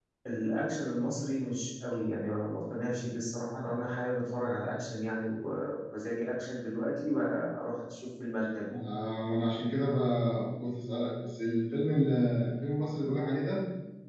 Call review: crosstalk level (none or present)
none